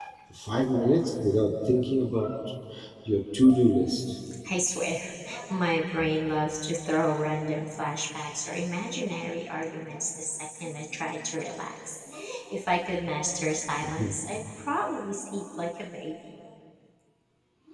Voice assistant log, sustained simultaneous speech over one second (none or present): none